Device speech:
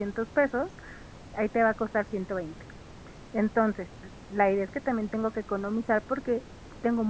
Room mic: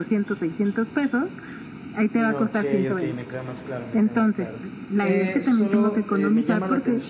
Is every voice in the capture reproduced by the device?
No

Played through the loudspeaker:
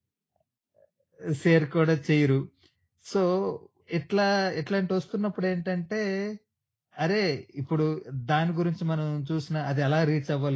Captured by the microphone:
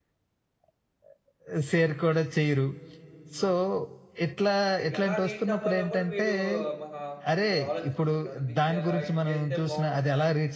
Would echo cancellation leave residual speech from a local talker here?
Yes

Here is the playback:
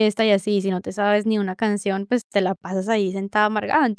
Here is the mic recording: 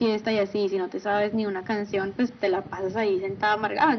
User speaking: No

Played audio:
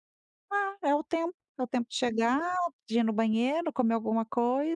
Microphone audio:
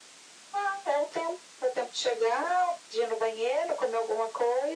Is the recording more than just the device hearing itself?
No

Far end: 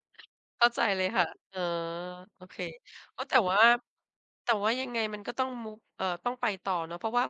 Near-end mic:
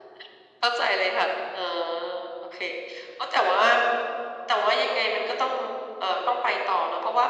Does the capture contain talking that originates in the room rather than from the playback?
No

